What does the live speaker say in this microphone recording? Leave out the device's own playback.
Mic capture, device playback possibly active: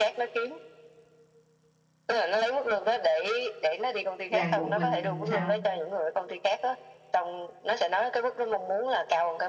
ràng buộc mình sao

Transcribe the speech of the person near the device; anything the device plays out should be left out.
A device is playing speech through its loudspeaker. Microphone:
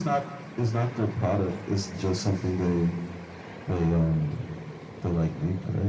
none

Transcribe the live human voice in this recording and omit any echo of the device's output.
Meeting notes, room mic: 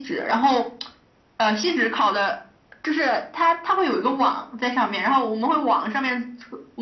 none

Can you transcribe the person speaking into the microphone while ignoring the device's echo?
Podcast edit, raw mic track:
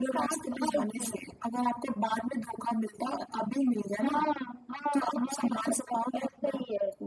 none

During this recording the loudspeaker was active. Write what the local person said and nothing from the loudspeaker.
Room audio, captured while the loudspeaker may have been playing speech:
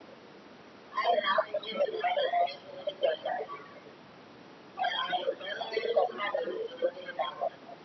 none

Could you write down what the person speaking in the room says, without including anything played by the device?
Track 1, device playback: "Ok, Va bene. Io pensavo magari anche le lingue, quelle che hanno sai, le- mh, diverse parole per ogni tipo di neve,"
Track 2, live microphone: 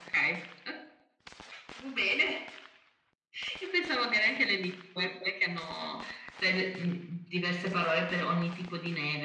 none

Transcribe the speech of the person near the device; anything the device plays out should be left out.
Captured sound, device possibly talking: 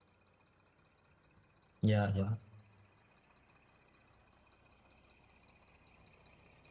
dạ dạ

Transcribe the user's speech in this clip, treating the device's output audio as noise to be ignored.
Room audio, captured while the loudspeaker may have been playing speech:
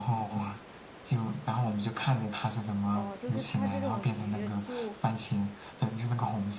哦，就是它这种鱼就，

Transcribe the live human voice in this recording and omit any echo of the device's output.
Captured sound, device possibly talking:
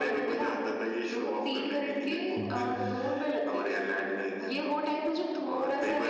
हम्म,

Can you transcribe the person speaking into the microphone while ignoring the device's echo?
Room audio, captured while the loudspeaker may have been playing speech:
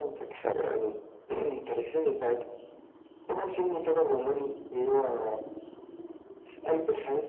طبعا

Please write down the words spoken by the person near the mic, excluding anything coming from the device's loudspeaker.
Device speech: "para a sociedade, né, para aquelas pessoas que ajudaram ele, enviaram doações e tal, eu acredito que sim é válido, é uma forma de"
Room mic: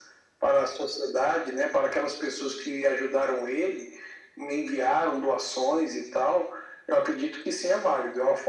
none

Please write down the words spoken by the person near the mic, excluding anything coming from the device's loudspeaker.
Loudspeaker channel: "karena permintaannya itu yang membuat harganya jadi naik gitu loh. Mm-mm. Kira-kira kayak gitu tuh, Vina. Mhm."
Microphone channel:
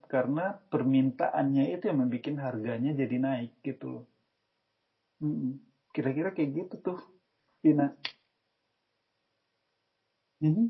none

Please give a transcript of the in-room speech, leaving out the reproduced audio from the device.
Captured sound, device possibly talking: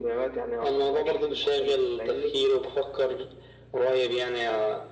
none

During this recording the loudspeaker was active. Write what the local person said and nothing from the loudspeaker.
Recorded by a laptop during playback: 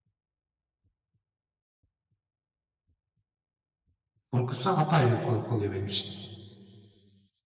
korkusu apayrı bir korku oluyor benim için.

